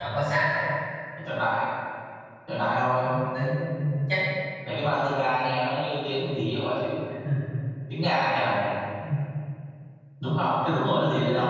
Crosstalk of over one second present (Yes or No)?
No